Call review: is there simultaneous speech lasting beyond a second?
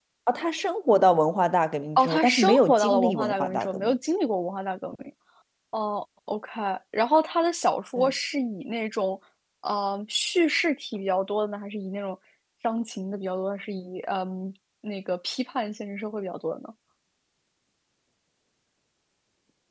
Yes, from 2.0 s

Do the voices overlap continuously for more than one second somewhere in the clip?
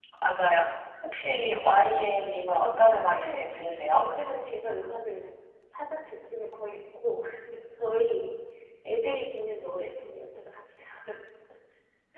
Yes, from 2.6 s

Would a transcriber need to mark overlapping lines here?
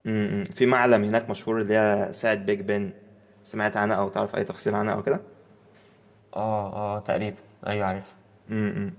No

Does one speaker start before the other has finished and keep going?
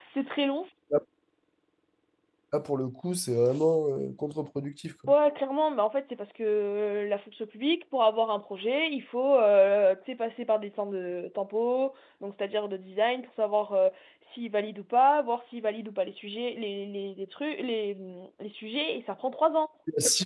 No

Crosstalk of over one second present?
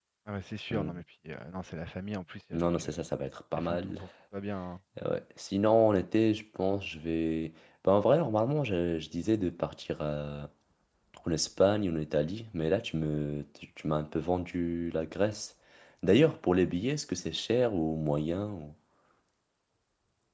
No

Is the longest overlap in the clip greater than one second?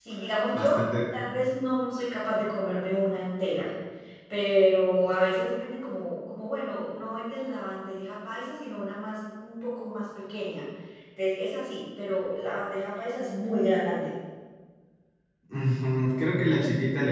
No

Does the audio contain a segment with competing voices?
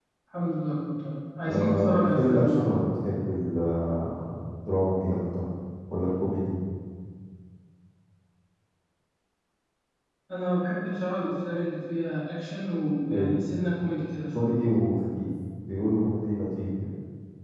Yes, from 1.5 s

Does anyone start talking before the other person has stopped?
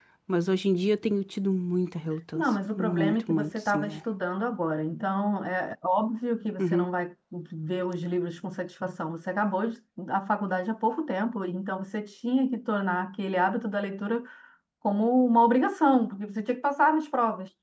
Yes, from 2.4 s

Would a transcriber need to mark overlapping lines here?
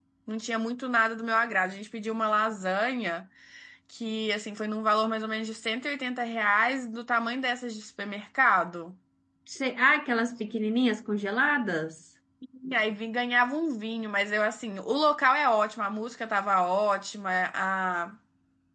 No

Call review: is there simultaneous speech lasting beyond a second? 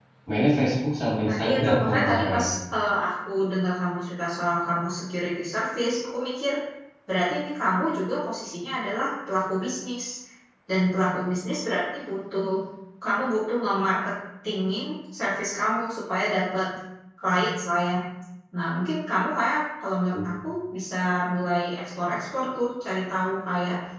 Yes, from 1.2 s

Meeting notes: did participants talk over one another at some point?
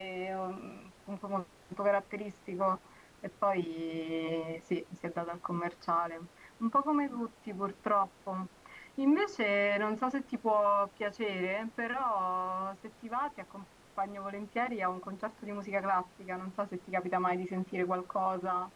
No

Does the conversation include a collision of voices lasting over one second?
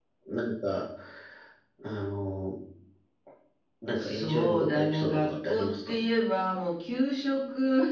Yes, from 4.0 s

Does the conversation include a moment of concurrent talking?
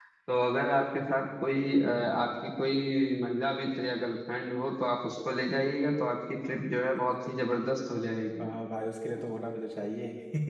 No

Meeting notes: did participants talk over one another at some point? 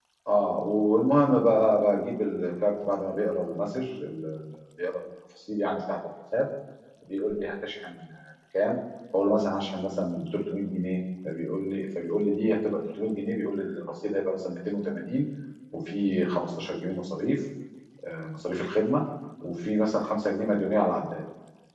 No

